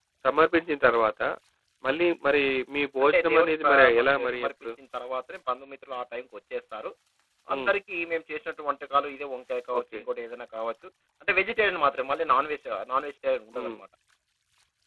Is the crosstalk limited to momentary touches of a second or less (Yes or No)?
No